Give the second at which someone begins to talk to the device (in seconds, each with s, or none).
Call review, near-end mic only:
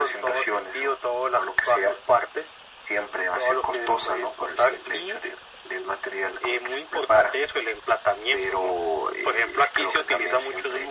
none